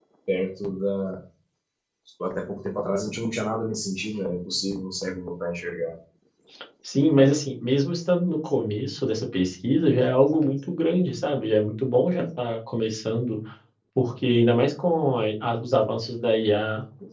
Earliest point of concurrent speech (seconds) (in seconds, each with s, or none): none